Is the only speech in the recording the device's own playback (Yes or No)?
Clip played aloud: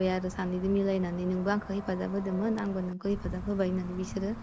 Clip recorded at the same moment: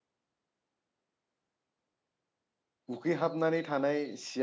No